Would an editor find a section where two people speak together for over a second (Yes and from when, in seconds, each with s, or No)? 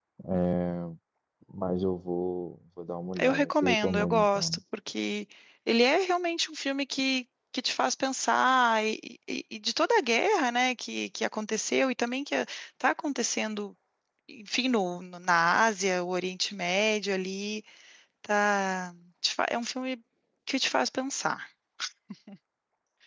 Yes, from 3.2 s